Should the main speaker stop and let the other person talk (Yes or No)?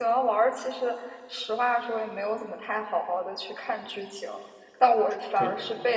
No